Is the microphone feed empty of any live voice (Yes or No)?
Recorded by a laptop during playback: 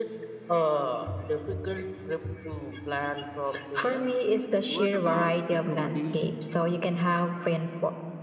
No